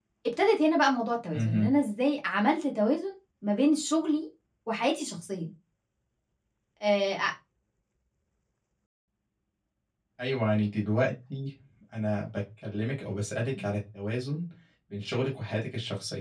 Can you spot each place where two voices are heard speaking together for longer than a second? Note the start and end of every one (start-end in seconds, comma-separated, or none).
none